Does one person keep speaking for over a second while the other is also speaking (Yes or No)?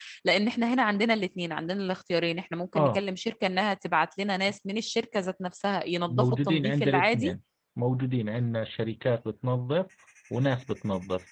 Yes